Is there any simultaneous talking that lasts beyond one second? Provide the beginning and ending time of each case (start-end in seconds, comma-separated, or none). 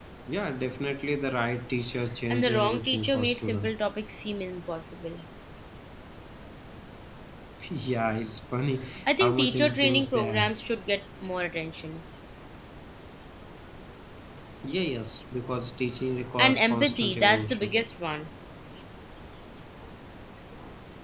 2.3-3.7, 9.1-10.5, 16.4-17.8